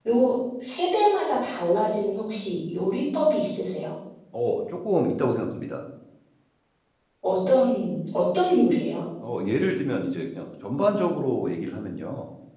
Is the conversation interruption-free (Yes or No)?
Yes